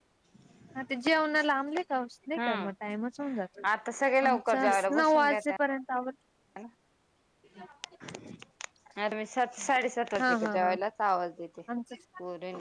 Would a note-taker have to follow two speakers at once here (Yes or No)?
Yes